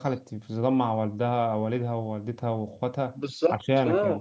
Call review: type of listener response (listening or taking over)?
taking over